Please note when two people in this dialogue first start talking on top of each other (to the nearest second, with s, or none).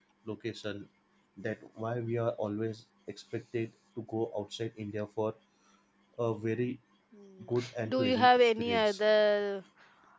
8 s